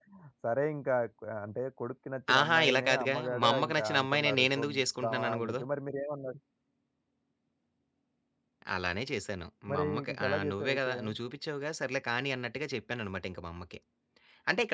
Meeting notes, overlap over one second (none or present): present